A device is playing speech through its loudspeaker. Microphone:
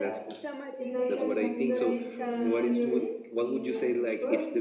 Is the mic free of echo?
No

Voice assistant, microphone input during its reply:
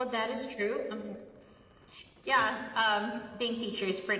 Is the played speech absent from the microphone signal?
No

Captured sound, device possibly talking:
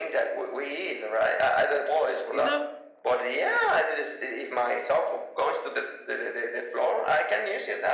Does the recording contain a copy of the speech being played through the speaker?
Yes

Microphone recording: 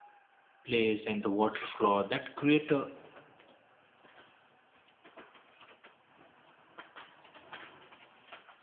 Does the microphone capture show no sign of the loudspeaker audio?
Yes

